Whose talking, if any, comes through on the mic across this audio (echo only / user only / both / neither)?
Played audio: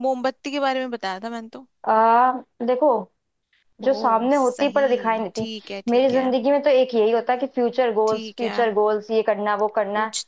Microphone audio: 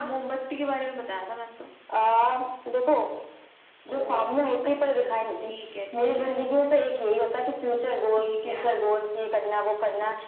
both